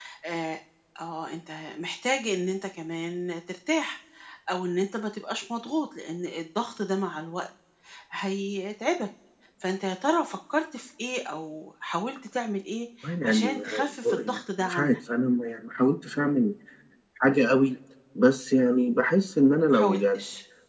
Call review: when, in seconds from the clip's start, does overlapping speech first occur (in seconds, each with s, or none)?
13.2 s